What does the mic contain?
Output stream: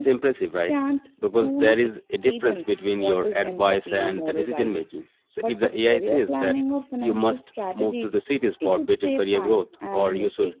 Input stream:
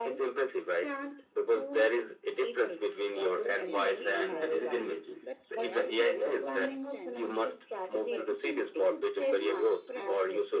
both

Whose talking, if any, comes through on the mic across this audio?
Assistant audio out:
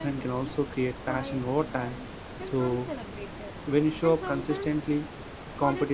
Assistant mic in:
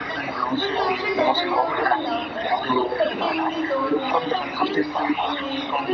both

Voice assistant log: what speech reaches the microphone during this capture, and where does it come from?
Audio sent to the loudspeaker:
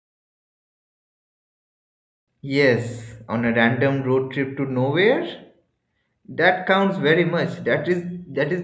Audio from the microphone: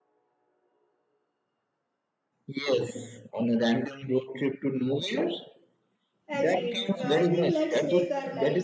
both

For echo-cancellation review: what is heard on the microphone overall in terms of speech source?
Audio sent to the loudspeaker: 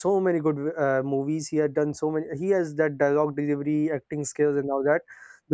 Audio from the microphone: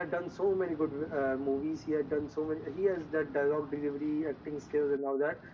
echo only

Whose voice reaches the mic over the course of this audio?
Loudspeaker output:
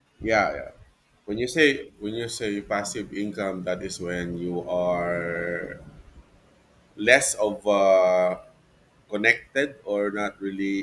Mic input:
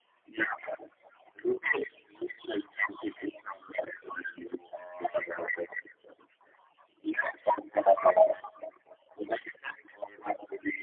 echo only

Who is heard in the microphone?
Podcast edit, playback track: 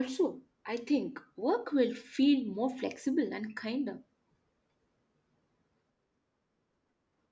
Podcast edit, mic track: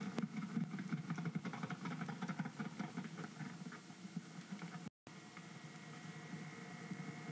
neither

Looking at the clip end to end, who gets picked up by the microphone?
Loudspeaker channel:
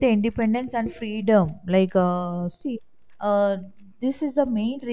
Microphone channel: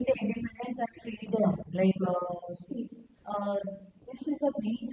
echo only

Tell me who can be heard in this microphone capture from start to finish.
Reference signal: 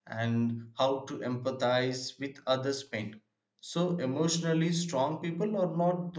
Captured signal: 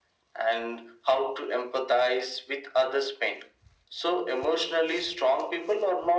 echo only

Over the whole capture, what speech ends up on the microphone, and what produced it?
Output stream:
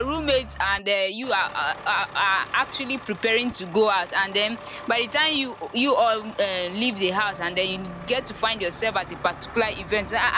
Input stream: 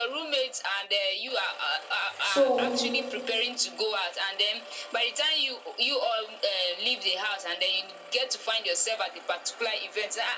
both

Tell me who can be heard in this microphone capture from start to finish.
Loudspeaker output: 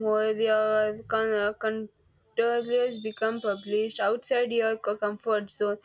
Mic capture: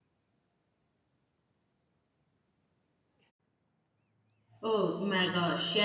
user only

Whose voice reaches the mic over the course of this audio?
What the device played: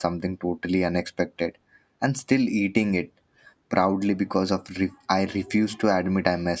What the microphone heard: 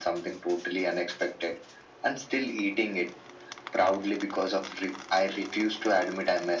echo only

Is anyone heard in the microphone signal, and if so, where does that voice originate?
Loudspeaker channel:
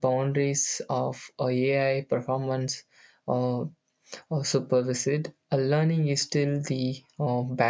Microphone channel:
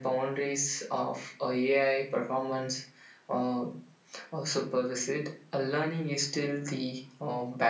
echo only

